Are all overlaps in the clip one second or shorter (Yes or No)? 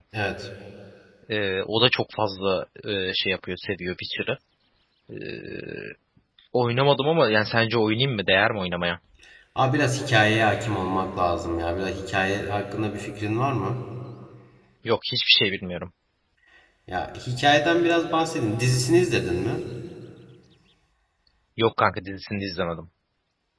Yes